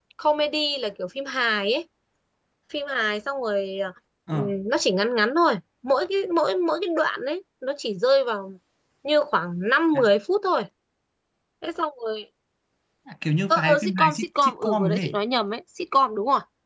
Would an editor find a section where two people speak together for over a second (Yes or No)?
Yes